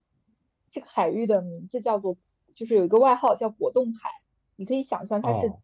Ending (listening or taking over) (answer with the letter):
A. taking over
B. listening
B